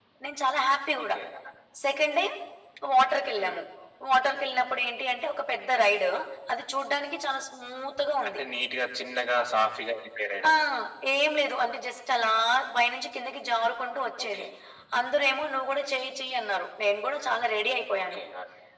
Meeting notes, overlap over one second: none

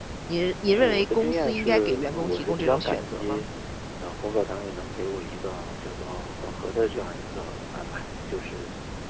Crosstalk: present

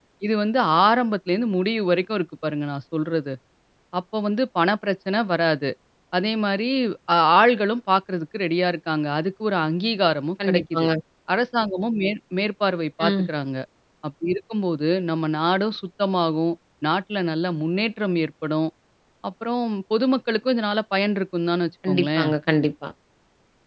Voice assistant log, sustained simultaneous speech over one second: none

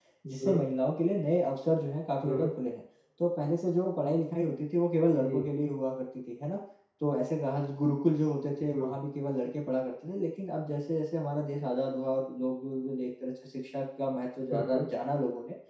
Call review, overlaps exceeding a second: none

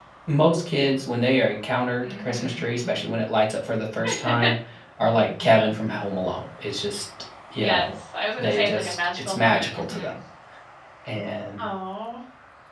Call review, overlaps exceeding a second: present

